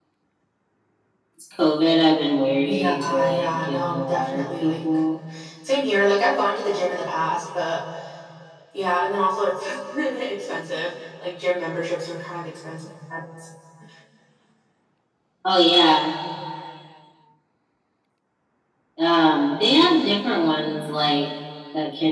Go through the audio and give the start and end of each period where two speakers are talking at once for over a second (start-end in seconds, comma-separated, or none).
2.6-4.8